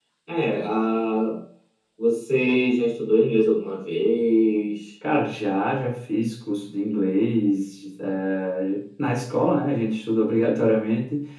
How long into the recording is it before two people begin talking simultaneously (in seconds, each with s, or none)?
none